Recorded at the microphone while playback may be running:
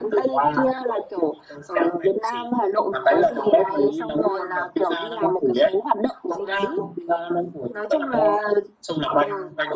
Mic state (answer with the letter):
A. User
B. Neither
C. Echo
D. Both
C